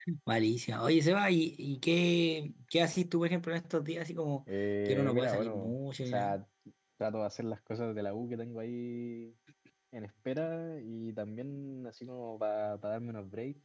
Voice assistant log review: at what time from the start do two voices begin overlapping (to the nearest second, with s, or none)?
5 s